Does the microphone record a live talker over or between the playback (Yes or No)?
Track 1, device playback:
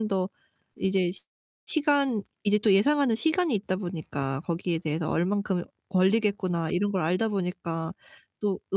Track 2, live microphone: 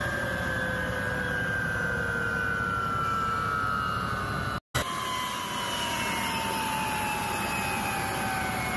No